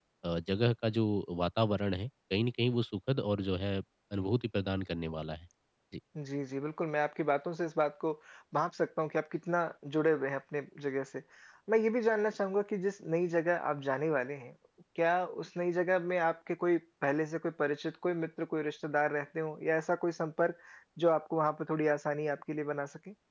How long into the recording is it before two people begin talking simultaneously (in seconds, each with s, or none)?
none